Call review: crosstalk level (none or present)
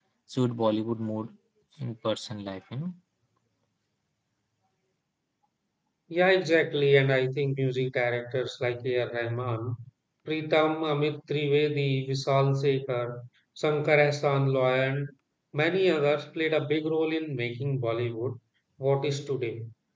none